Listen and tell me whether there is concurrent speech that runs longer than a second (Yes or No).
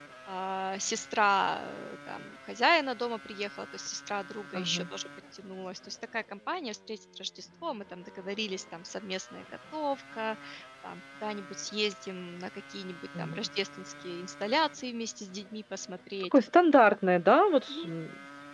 No